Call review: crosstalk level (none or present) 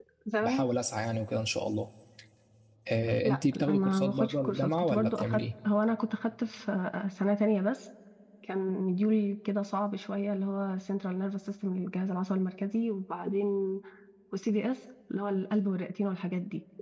present